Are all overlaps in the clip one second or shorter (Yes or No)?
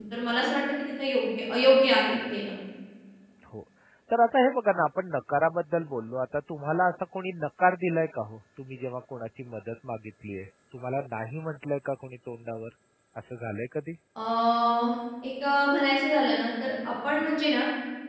Yes